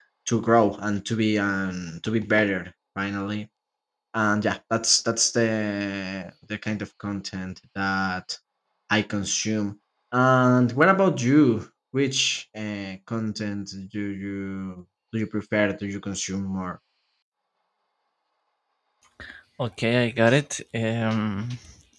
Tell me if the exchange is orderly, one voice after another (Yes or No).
Yes